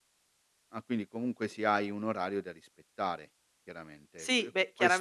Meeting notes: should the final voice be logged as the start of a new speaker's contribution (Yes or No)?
Yes